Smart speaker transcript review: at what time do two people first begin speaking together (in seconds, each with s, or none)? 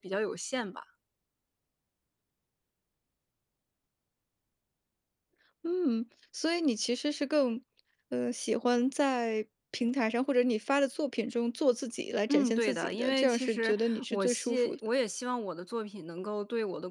12.3 s